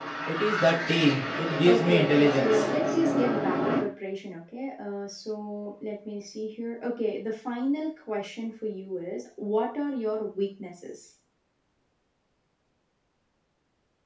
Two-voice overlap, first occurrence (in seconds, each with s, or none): 1.6 s